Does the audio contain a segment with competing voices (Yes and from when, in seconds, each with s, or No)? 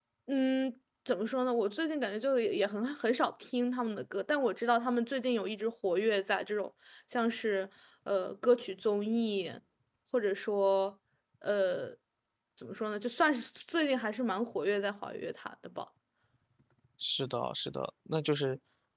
No